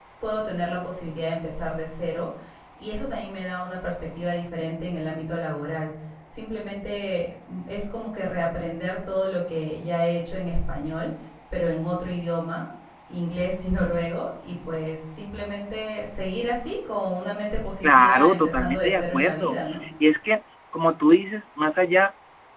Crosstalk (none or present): present